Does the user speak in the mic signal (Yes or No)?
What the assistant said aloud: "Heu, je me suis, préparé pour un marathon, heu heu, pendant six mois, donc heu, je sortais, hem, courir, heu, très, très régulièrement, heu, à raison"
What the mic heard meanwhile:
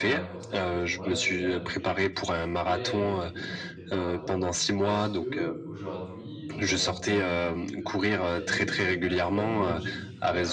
Yes